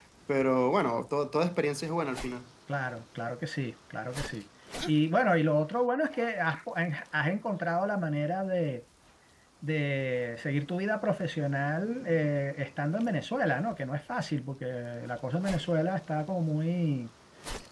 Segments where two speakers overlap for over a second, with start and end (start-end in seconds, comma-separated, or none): none